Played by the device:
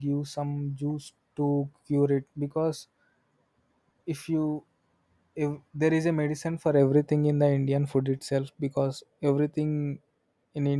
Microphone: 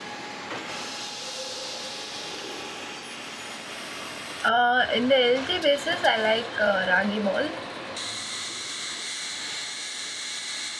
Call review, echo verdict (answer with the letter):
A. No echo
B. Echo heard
A